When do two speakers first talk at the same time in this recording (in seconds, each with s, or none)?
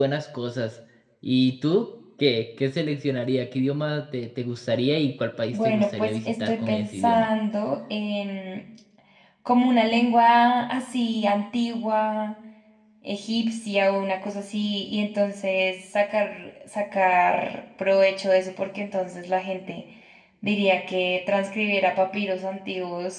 5.5 s